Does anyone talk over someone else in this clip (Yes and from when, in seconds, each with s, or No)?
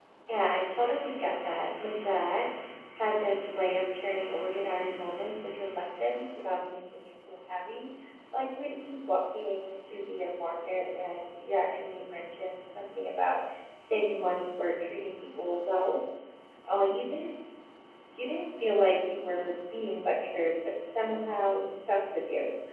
No